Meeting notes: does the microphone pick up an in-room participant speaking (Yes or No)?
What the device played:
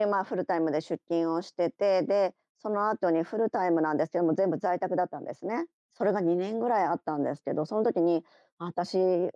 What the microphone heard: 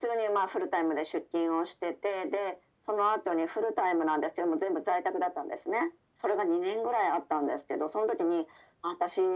No